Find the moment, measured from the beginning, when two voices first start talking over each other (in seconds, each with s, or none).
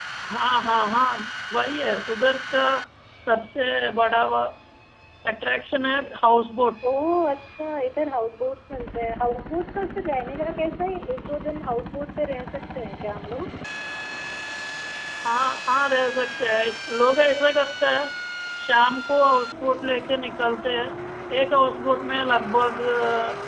none